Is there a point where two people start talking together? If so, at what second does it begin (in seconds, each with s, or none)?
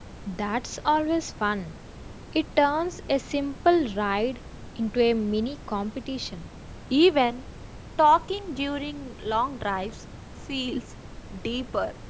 none